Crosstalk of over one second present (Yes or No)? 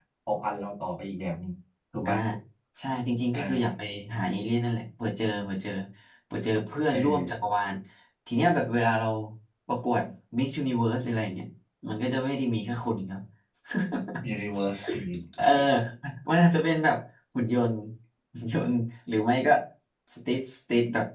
No